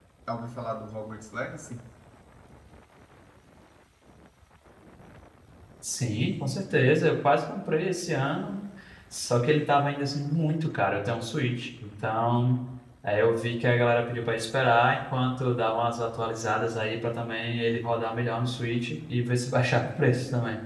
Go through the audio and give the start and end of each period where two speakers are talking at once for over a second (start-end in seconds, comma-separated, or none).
none